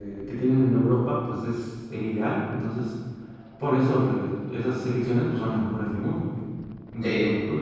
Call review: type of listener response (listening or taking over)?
taking over